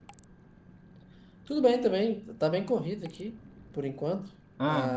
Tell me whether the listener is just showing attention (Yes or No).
Yes